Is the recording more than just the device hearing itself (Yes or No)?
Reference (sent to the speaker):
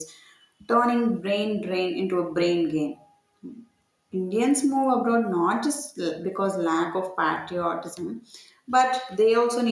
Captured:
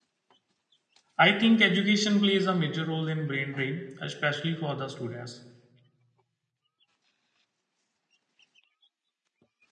Yes